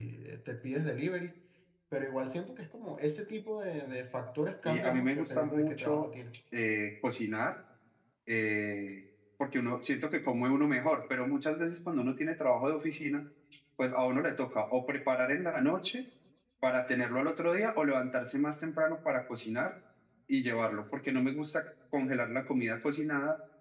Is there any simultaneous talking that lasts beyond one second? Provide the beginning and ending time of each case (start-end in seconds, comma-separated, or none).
4.6-6.1